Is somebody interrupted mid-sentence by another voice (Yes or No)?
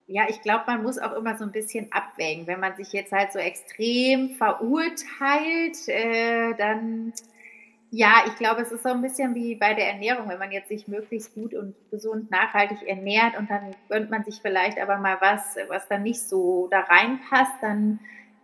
No